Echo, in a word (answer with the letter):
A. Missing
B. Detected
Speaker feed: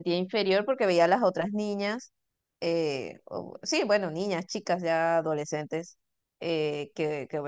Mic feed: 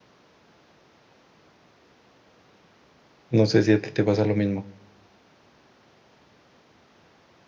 A